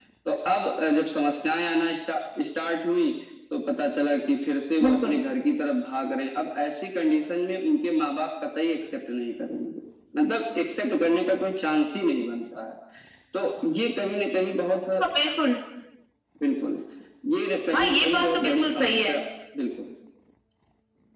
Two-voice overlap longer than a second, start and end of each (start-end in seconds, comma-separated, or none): 17.7-19.1